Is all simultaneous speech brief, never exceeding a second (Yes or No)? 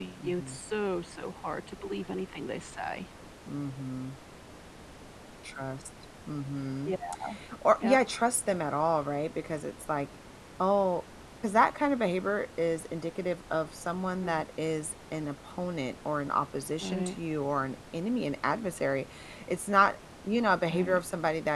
Yes